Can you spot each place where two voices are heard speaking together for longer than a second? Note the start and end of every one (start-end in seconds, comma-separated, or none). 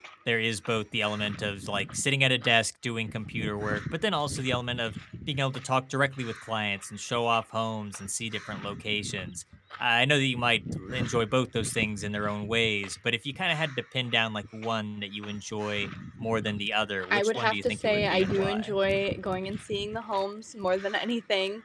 17.1-18.8